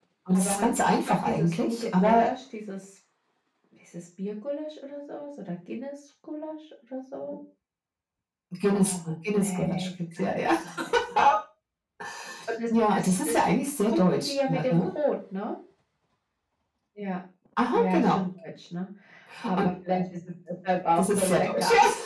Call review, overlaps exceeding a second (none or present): present